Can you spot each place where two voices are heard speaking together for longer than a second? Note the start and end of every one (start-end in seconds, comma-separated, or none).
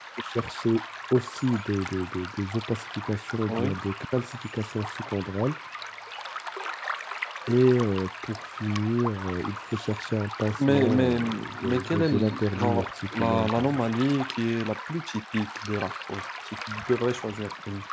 10.7-13.8